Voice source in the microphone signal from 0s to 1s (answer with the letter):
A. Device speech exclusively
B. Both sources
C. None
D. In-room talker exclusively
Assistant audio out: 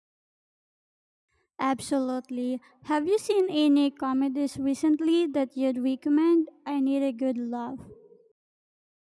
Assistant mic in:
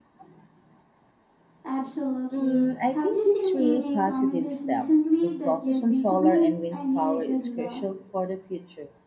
C